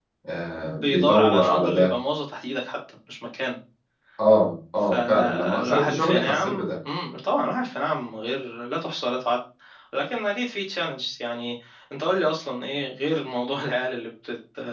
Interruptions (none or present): present